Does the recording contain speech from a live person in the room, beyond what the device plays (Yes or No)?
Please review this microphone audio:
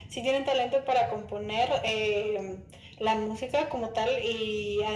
No